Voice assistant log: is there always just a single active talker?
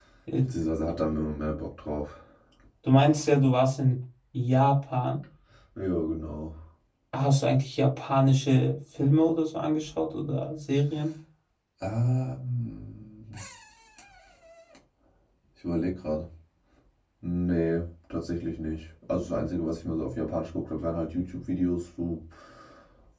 Yes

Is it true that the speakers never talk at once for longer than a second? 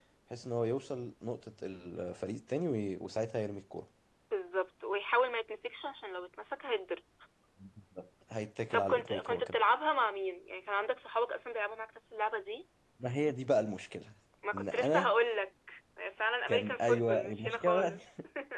No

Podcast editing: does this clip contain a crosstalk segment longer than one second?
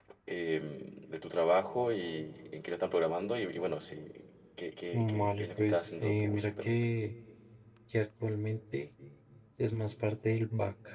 Yes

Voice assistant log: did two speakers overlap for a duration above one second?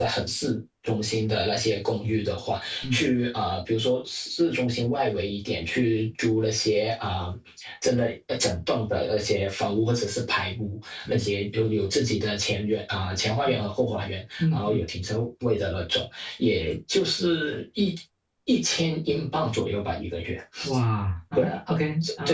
No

